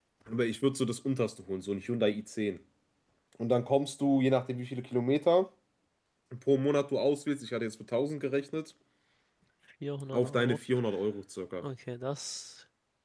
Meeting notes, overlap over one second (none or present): none